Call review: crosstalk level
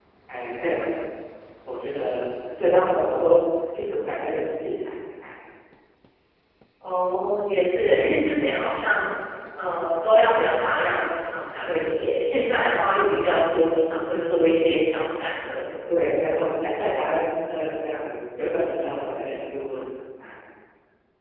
none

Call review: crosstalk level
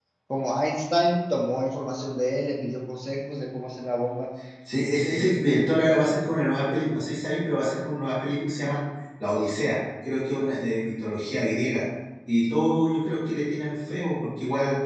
none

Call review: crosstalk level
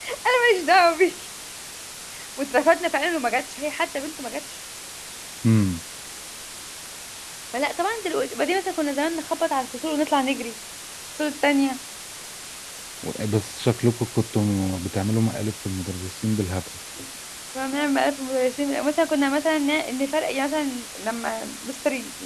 none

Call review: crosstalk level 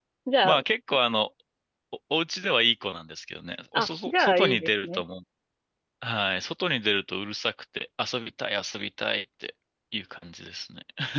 present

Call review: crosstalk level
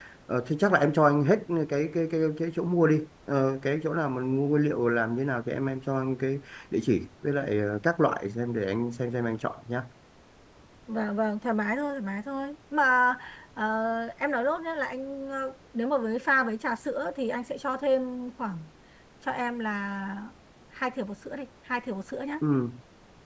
none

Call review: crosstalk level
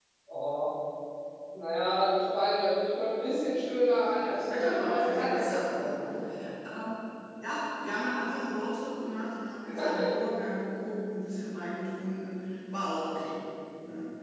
present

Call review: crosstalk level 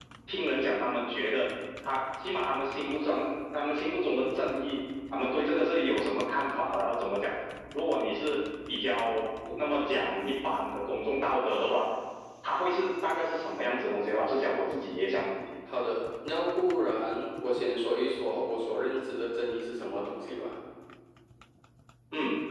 none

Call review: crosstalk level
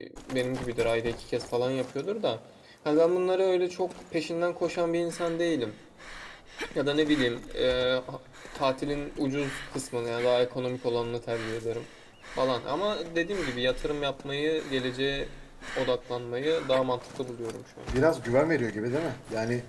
none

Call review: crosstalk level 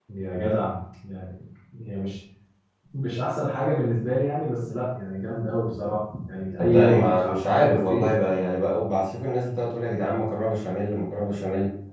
present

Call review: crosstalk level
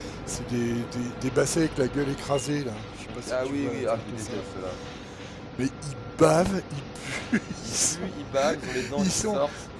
present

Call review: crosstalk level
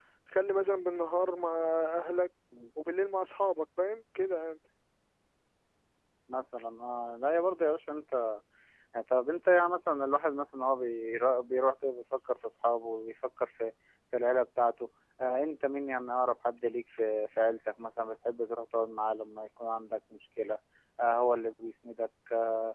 none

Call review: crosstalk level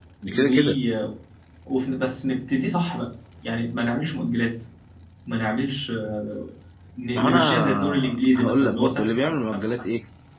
present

